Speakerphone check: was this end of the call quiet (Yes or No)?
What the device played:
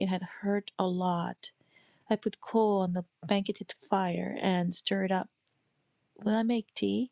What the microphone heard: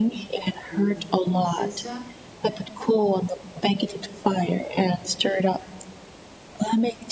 No